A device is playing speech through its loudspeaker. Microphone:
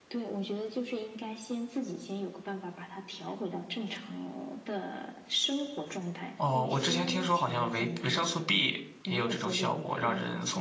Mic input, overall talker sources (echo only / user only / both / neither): both